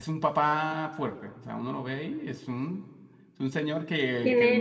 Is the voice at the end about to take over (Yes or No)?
Yes